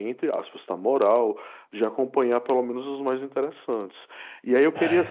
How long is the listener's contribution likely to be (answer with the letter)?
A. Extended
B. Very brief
B